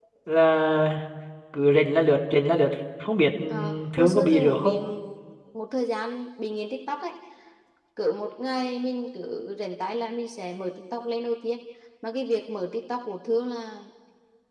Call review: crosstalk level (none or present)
present